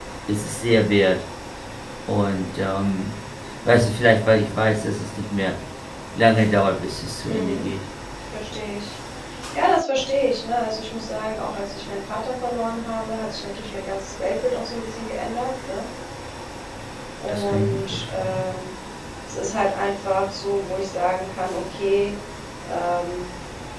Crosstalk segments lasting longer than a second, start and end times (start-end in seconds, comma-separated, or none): 17.3-18.5